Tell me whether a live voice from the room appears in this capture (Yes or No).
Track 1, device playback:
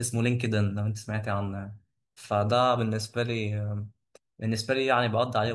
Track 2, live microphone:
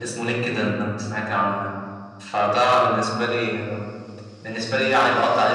No